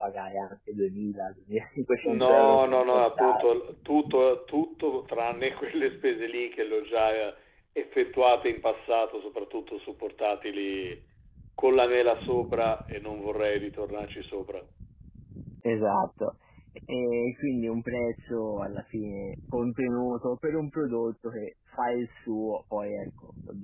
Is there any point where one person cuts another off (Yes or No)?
Yes